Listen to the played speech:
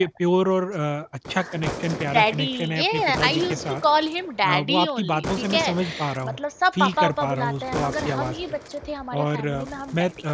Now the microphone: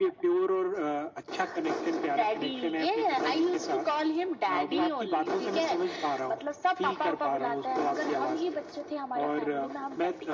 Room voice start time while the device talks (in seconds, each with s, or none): none